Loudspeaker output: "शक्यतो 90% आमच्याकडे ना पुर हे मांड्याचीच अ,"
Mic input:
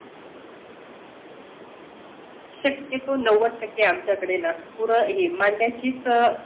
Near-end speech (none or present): none